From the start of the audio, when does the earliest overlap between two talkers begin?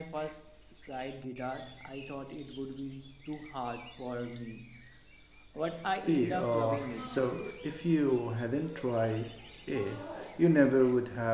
6 s

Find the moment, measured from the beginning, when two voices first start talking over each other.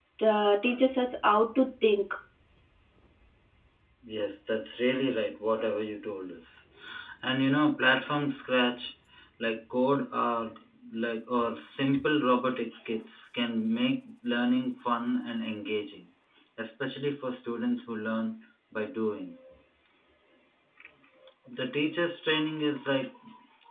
none

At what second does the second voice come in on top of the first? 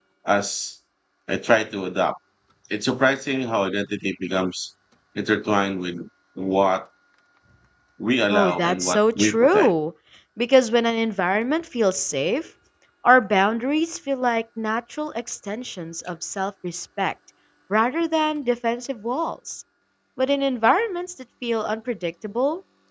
8 s

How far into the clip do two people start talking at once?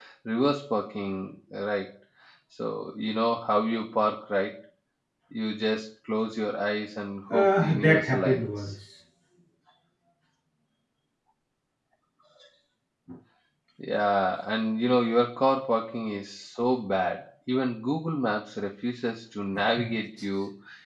7 s

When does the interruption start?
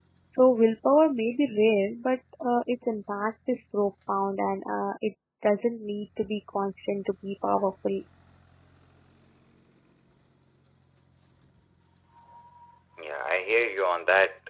none

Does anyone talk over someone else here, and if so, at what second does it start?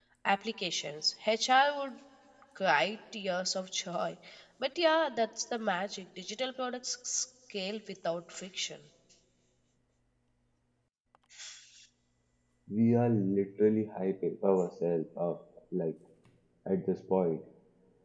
none

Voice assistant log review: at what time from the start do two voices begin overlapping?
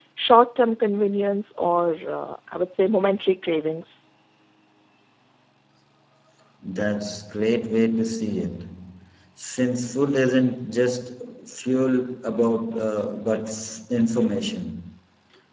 none

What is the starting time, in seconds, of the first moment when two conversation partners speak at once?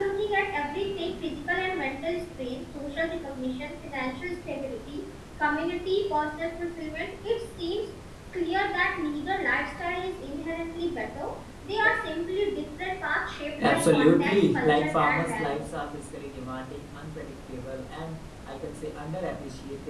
14 s

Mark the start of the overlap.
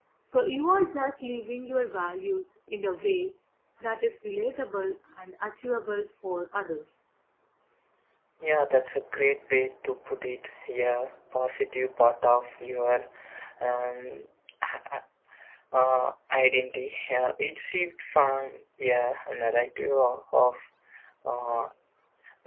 none

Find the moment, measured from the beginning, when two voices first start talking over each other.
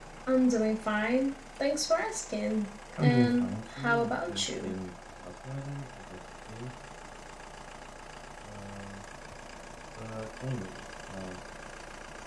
3 s

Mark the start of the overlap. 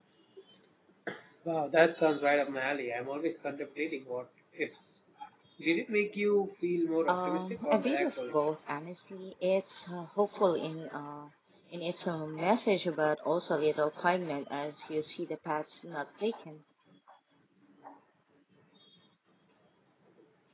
7 s

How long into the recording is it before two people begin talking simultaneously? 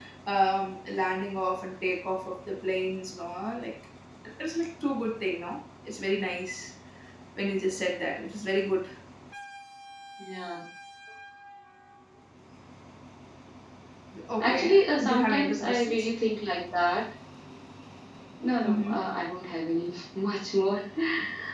14 s

